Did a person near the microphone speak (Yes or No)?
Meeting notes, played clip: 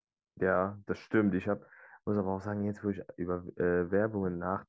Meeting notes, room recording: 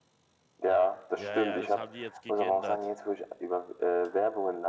Yes